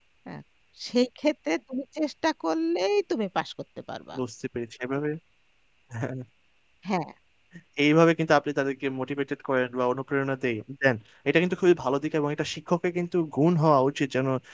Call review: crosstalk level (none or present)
none